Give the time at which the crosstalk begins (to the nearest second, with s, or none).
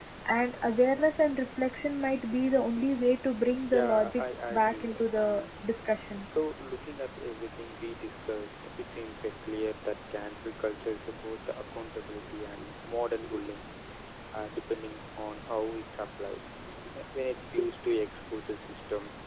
4 s